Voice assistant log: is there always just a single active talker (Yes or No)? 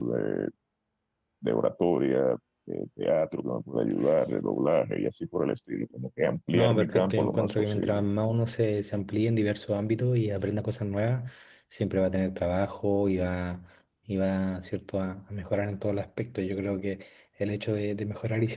No